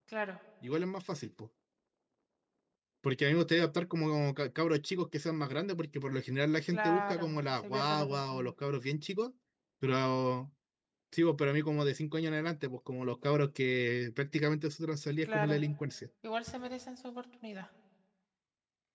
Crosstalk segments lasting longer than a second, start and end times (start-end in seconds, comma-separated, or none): 6.7-8.5